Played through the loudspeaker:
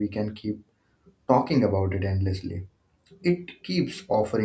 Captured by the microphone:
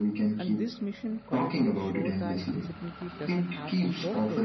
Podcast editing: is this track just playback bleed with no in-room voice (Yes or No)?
No